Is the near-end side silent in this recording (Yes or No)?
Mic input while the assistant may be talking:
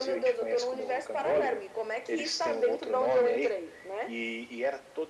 Yes